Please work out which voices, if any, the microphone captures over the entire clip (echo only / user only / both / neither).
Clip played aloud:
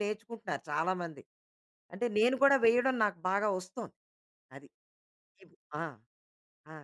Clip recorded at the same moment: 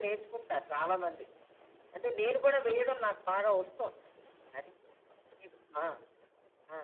echo only